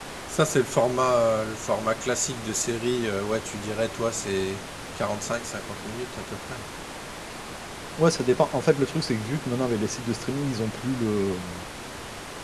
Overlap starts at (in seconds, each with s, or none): none